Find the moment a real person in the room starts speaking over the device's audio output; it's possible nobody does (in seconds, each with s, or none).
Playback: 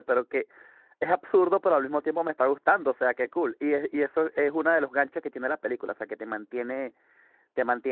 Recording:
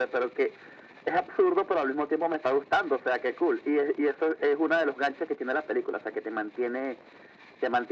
none